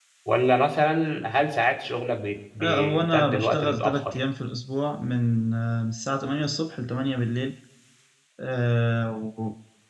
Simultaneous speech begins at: 2.6 s

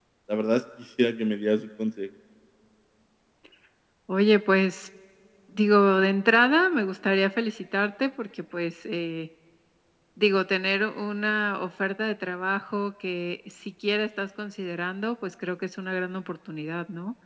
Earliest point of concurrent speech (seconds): none

